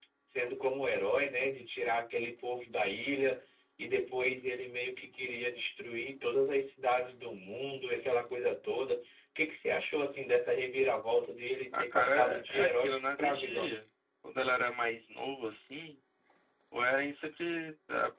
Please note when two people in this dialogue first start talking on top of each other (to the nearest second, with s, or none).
12 s